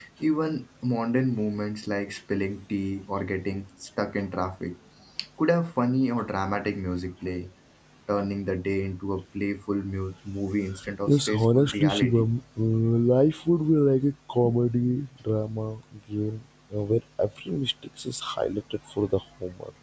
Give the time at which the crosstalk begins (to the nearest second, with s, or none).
11 s